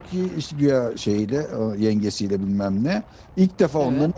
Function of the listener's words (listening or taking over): listening